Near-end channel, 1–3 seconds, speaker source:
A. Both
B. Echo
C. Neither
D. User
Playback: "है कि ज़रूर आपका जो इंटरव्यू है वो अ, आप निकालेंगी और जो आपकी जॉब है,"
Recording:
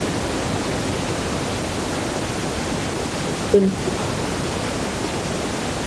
C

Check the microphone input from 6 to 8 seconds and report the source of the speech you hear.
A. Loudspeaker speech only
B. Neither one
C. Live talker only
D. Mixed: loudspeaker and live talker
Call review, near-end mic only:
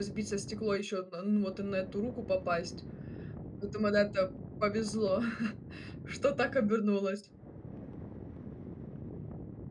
C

